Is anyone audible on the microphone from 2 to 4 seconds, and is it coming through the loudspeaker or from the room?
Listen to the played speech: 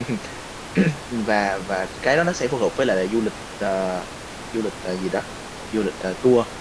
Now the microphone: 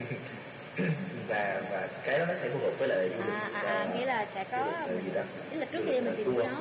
both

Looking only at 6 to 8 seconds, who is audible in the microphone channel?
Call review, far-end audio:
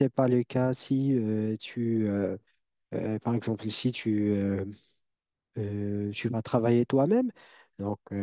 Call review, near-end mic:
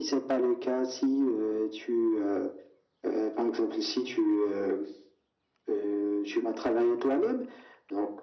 echo only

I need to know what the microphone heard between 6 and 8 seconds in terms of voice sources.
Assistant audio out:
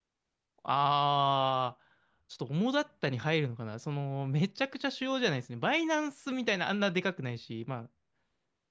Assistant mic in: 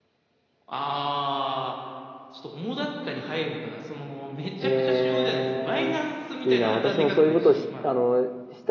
both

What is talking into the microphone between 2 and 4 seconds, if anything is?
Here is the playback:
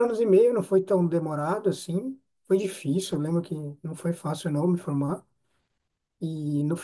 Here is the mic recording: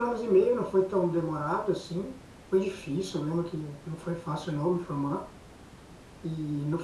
echo only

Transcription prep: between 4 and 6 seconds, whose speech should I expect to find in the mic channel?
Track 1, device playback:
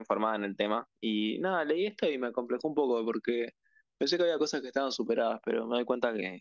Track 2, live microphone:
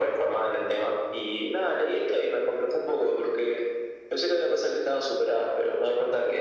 echo only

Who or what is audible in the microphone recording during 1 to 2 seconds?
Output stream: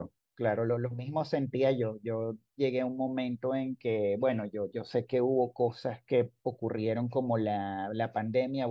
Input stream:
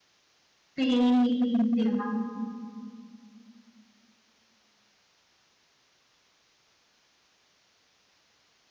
user only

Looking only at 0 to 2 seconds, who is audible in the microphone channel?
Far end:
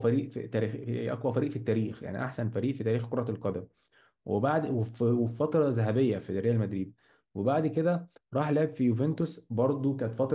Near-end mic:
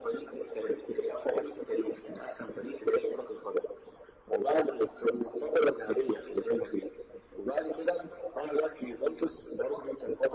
echo only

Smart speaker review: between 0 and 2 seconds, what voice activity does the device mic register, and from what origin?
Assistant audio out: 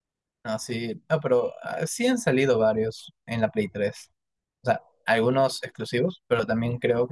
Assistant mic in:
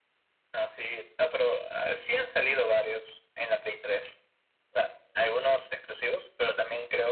echo only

